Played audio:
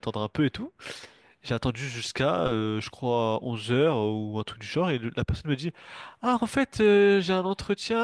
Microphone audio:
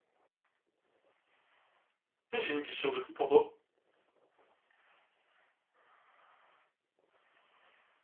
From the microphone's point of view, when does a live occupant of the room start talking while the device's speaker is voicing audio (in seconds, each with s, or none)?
2.3 s